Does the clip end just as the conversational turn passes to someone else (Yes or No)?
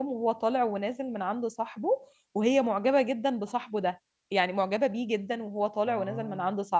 No